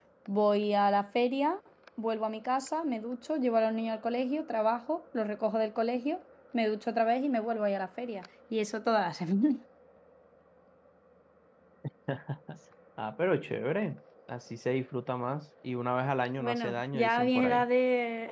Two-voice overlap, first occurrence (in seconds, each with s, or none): 16.4 s